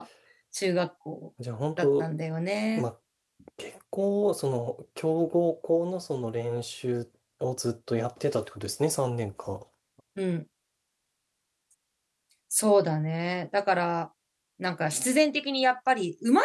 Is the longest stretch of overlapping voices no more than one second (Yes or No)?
Yes